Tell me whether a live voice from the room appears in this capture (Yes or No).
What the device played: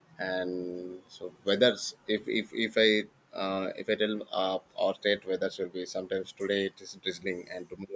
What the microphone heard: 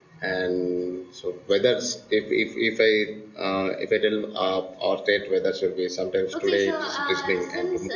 Yes